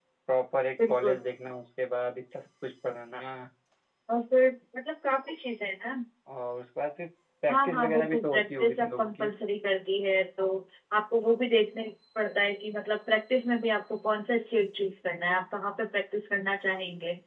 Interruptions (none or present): present